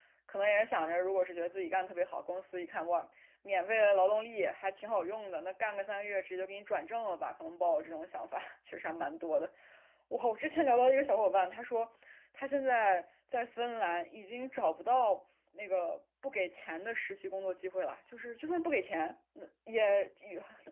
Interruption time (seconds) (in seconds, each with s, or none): none